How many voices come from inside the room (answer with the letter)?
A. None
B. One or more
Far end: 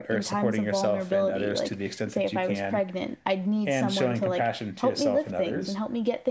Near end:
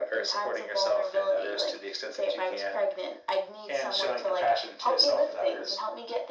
A